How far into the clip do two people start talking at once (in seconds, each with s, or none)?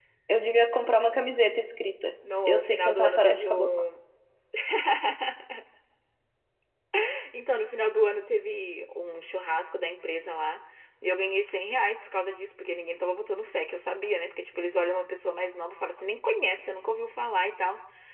2.5 s